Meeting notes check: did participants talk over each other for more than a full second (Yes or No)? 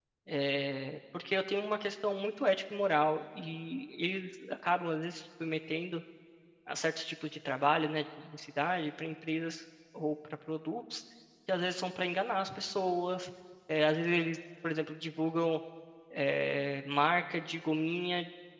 No